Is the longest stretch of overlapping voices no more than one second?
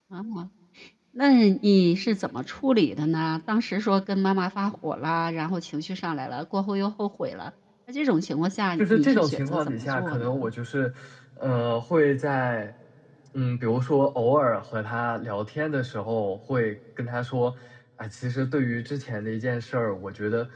No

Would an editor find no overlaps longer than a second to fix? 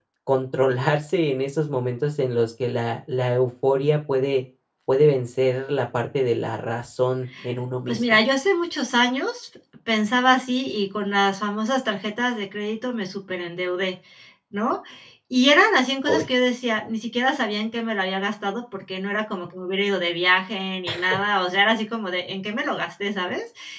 Yes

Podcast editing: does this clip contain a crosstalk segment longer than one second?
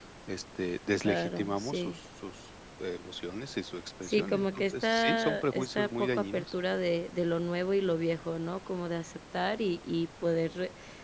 Yes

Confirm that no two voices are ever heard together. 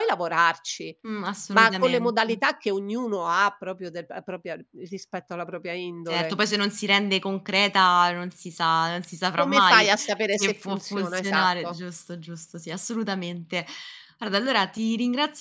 No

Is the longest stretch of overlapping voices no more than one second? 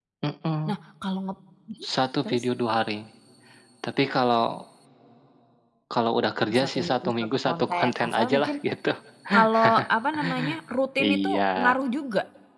No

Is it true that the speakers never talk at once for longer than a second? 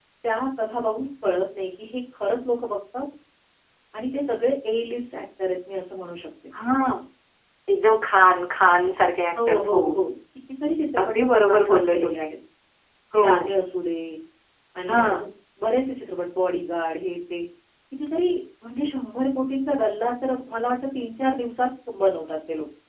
No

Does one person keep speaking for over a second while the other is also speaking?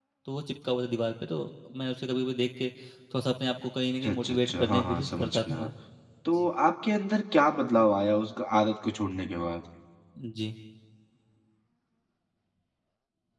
Yes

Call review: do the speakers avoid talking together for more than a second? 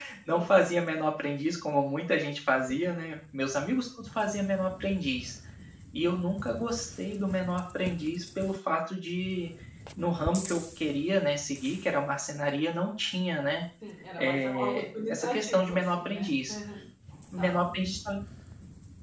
No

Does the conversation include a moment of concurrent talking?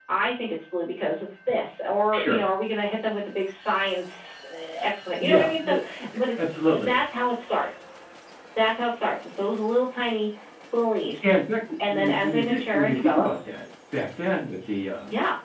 Yes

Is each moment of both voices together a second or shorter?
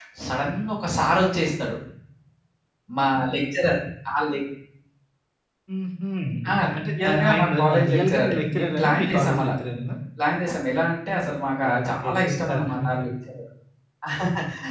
No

